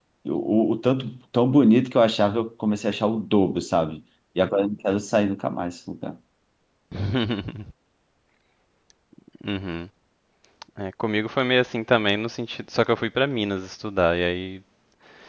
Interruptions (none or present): none